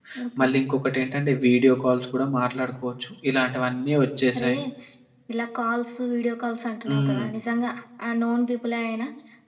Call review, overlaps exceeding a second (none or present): none